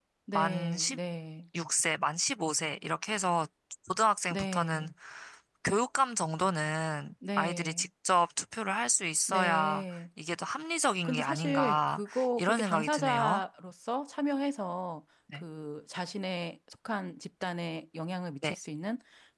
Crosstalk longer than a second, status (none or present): present